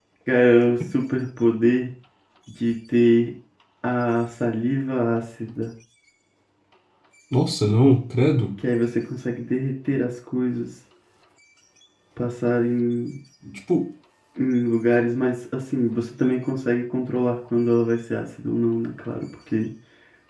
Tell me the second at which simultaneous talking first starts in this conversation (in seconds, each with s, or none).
none